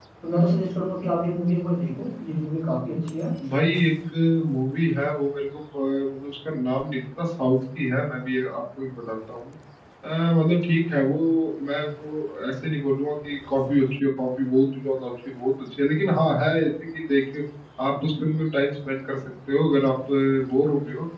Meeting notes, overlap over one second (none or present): none